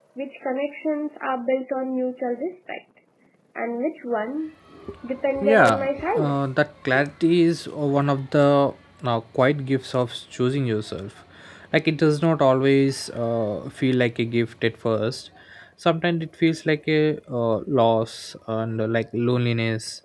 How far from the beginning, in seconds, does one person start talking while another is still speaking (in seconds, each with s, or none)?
5.4 s